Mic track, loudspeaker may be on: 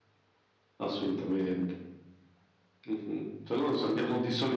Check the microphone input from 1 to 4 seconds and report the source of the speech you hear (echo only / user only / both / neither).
echo only